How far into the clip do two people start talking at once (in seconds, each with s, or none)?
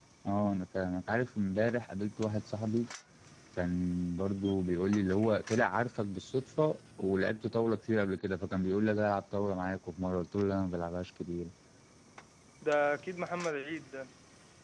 none